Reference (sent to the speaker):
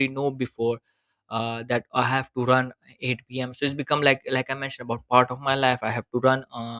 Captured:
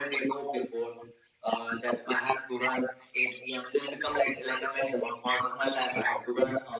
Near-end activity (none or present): none